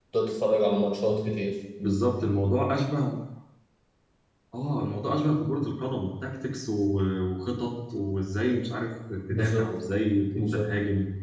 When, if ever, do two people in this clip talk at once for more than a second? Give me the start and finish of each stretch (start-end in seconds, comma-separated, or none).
none